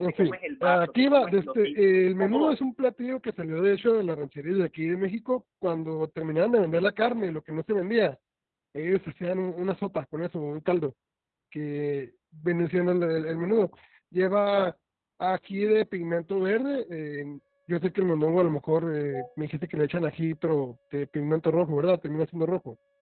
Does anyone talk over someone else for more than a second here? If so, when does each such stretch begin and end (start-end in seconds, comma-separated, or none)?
0.8-2.6